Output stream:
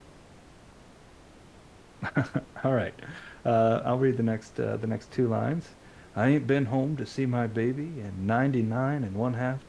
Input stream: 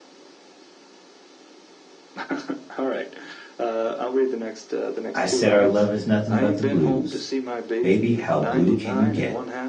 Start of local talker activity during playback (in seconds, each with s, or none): 5.1 s